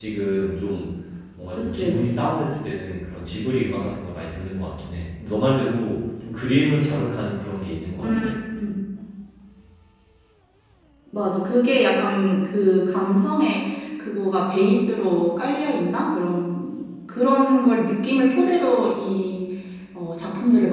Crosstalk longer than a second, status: none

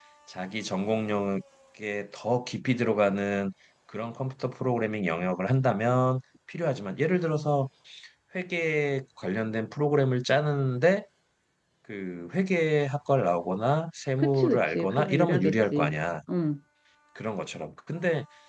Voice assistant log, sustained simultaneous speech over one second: present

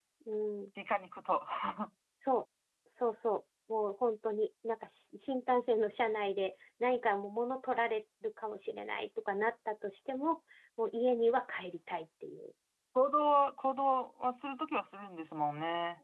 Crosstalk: none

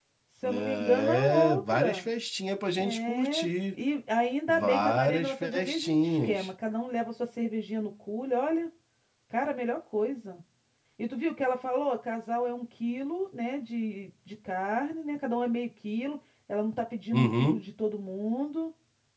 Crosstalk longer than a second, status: present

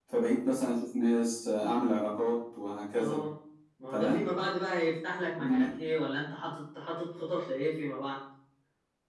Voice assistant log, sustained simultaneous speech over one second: none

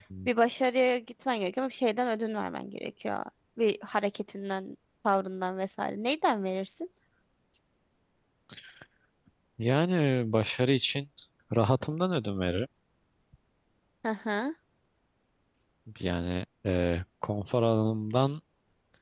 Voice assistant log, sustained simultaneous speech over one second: none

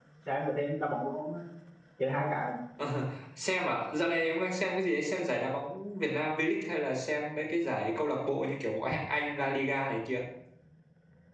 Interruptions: none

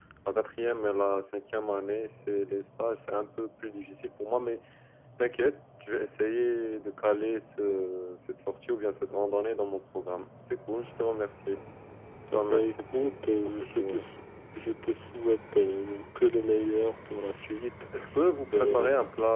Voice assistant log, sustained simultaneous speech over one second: present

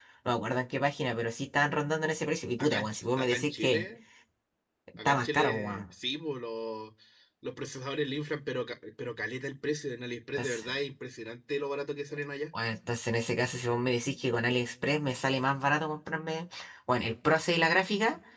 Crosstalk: present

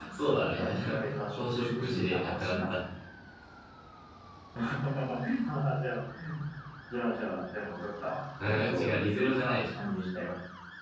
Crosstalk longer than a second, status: present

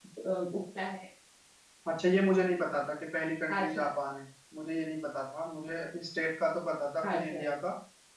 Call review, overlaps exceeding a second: none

